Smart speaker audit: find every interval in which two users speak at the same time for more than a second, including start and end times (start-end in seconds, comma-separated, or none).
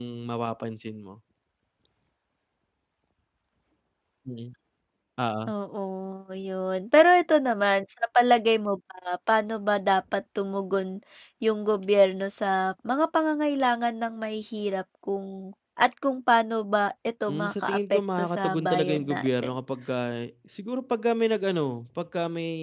17.3-19.6